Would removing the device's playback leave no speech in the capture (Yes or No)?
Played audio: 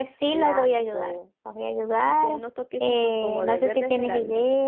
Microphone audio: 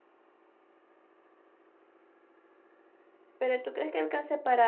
No